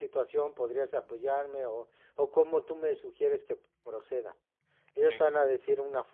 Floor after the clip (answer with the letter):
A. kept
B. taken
A